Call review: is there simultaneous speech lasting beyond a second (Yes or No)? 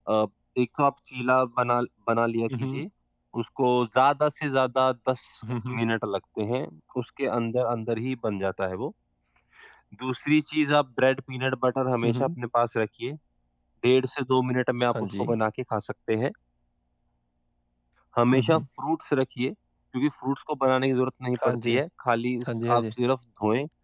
No